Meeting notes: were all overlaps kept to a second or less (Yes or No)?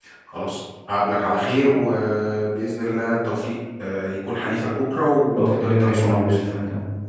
No